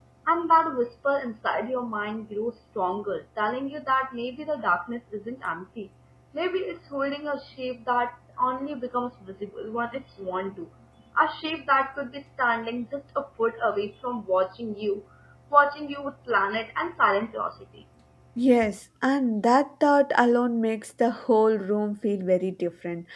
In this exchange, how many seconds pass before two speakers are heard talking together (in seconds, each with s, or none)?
none